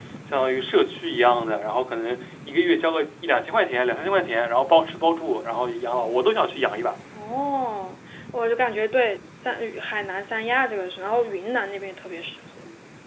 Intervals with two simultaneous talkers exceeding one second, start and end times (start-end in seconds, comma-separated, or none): none